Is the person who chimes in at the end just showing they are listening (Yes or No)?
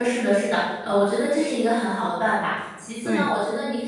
Yes